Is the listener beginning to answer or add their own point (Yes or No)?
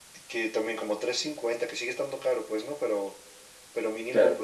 No